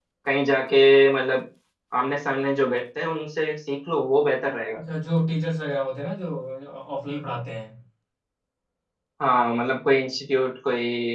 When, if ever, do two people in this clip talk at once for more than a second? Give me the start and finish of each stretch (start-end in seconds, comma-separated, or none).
none